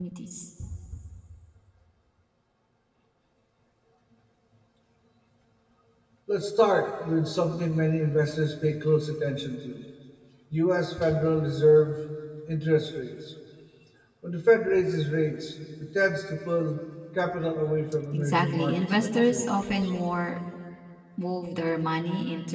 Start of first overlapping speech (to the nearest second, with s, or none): 18 s